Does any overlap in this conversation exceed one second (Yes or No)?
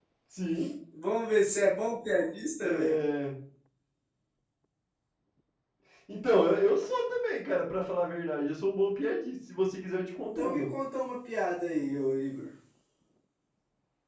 No